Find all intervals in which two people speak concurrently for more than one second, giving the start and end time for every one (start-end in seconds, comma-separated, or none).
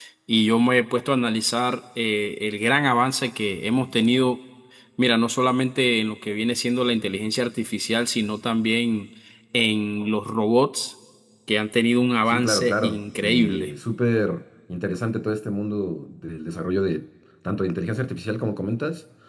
12.3-13.7